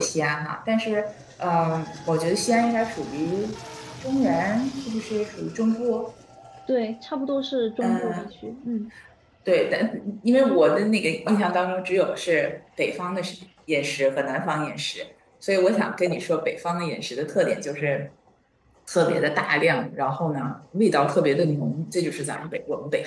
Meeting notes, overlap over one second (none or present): none